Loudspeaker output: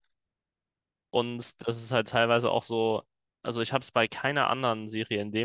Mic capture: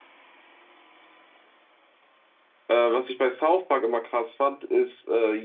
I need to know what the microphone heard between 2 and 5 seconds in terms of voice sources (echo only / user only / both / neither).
user only